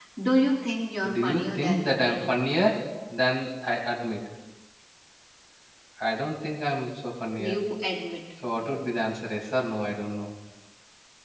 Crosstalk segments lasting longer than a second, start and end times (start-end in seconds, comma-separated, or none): 1.1-2.4